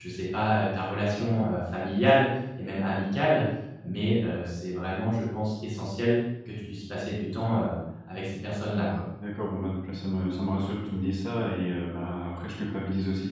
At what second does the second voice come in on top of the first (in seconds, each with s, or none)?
none